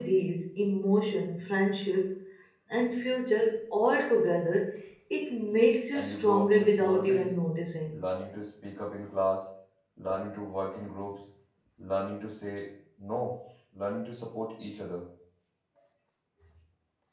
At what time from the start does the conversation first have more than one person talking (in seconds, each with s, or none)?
5.9 s